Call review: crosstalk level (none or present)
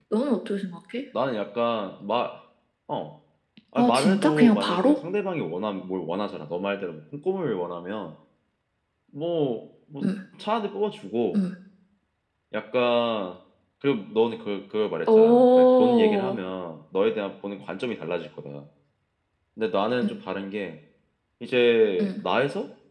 present